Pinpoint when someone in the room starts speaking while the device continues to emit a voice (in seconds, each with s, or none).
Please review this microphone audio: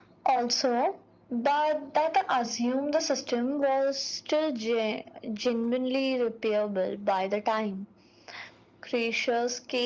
none